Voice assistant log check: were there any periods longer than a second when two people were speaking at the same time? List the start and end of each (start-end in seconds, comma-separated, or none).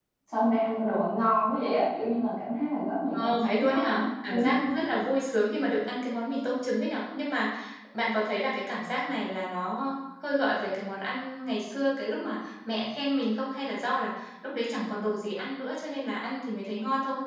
3.1-4.5